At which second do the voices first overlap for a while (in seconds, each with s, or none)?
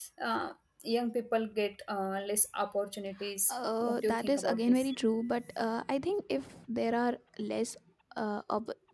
3.5 s